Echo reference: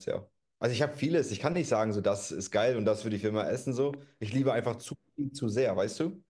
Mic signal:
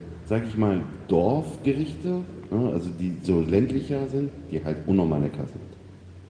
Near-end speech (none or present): present